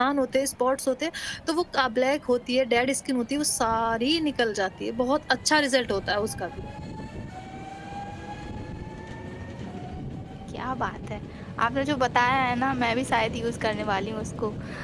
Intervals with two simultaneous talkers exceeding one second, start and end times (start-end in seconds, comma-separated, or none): none